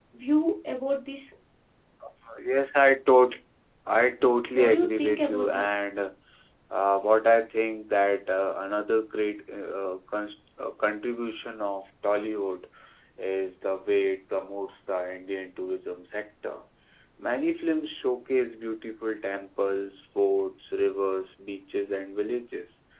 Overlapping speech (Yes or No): Yes